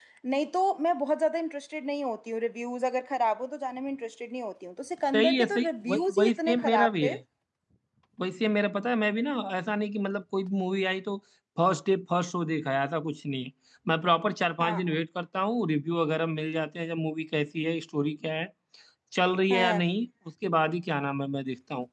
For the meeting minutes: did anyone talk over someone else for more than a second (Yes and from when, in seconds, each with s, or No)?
Yes, from 5.1 s